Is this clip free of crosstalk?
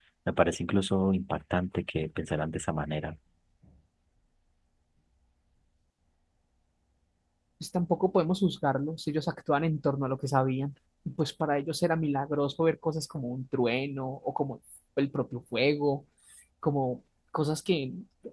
Yes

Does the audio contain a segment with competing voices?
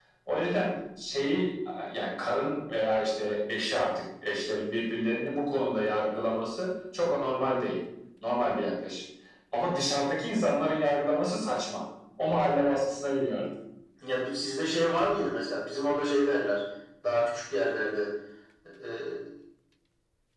No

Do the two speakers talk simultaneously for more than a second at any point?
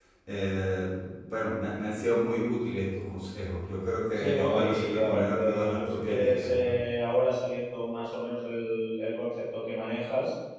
Yes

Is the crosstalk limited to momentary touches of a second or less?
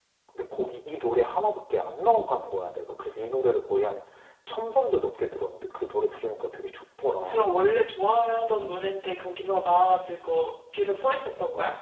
Yes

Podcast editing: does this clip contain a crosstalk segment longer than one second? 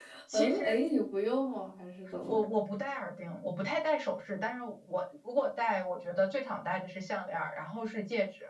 No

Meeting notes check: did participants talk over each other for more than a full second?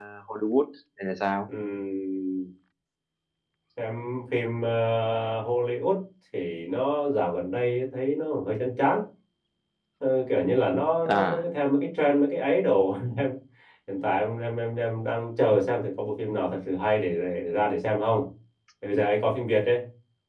No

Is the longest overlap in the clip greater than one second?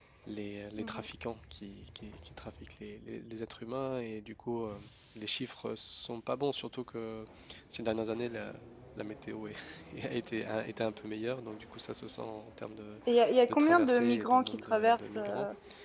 Yes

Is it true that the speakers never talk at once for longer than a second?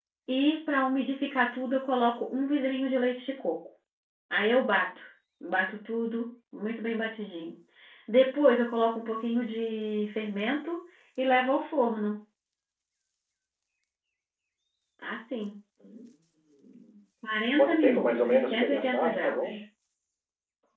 No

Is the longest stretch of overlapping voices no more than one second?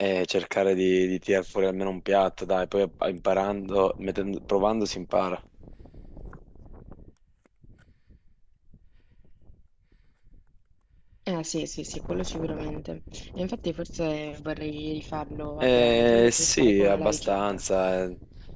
No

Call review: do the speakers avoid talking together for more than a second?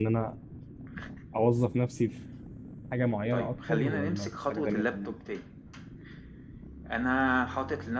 No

